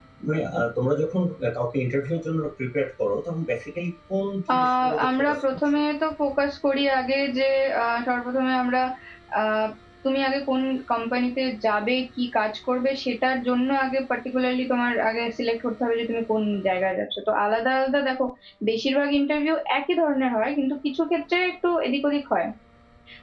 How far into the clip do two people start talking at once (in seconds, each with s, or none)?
4.5 s